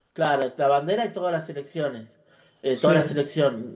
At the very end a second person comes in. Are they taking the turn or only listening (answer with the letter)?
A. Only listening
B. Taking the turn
A